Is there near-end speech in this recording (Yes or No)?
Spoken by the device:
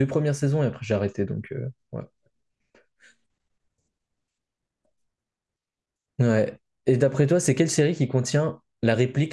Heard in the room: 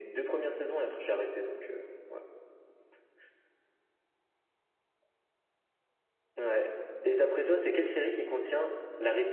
No